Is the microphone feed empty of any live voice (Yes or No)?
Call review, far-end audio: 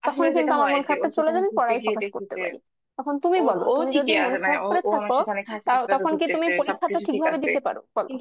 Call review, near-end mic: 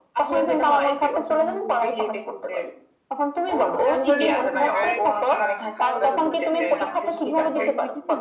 No